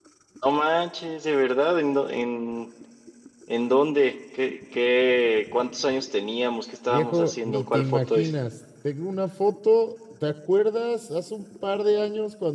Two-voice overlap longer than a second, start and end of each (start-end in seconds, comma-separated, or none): 6.9-8.3